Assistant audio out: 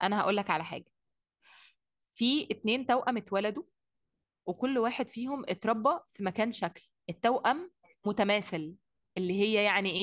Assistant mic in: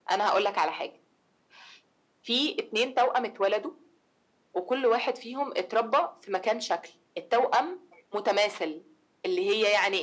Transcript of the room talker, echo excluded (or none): none